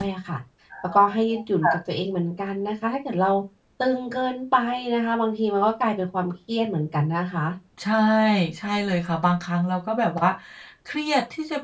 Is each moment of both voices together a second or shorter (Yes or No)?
Yes